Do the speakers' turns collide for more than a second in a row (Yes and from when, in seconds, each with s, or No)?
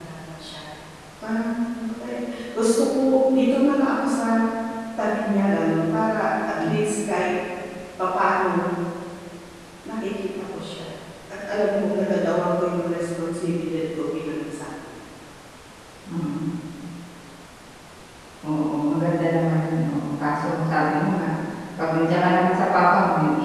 No